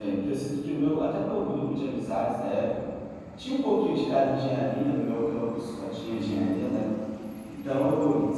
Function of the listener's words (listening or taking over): listening